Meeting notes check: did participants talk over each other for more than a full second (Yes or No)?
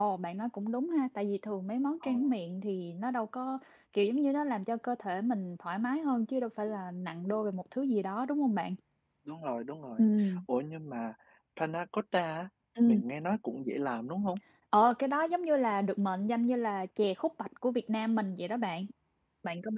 No